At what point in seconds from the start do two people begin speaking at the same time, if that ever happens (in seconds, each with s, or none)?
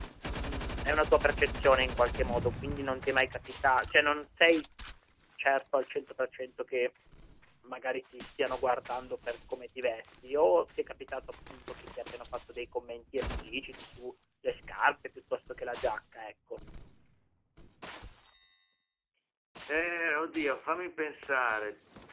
none